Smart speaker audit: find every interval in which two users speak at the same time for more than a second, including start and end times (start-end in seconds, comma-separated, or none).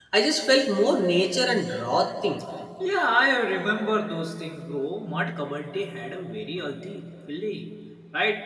none